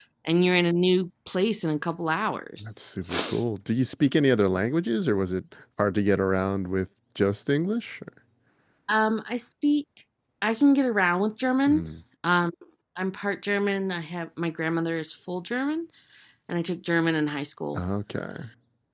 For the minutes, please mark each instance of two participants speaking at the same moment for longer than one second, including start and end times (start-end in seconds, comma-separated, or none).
none